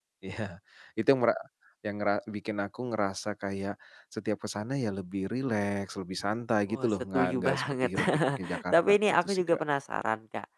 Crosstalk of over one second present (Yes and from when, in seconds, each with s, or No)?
Yes, from 6.7 s